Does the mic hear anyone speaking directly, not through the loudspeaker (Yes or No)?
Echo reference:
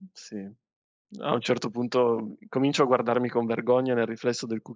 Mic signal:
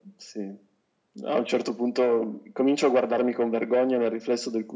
No